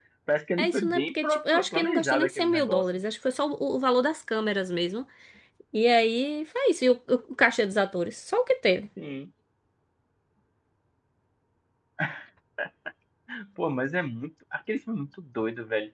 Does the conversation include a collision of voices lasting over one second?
Yes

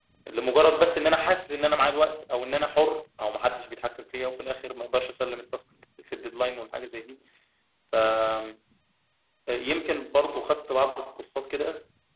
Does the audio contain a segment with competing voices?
No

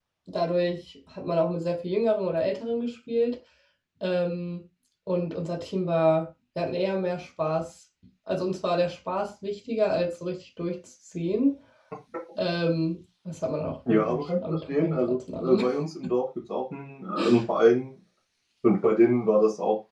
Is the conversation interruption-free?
No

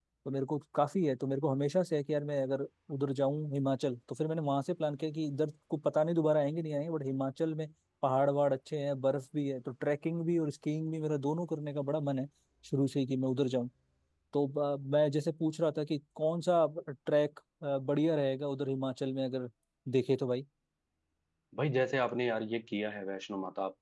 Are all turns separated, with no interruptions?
Yes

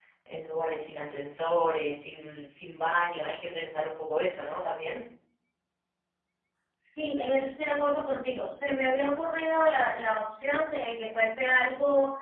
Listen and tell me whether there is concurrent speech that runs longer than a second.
No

